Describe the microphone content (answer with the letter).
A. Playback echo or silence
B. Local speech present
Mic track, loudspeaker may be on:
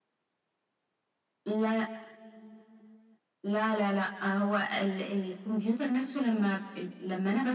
A